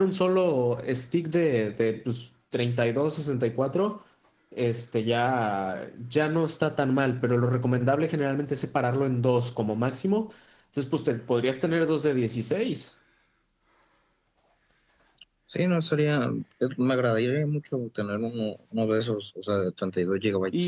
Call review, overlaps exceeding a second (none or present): none